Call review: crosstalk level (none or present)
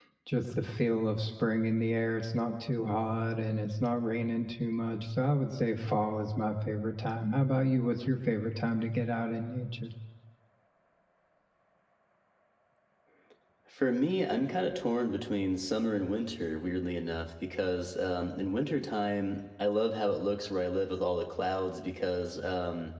none